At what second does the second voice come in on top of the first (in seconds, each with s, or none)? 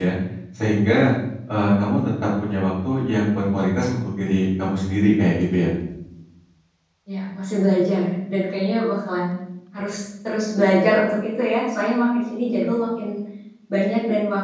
none